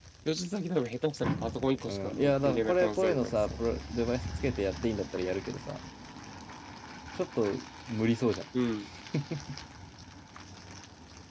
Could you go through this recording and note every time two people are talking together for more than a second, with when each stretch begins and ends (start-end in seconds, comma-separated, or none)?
1.9-3.5